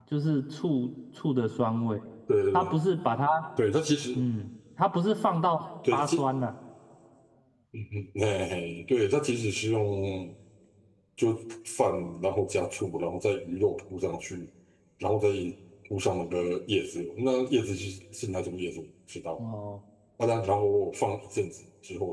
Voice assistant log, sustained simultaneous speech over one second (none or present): none